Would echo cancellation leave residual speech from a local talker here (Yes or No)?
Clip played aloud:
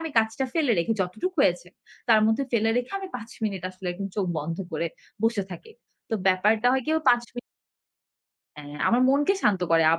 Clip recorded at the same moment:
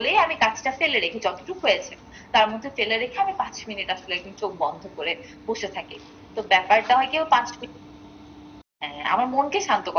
No